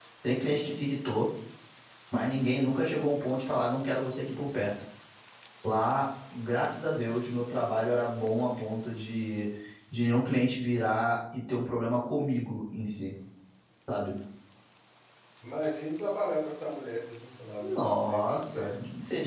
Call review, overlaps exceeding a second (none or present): present